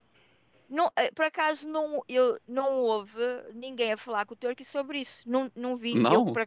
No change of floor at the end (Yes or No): Yes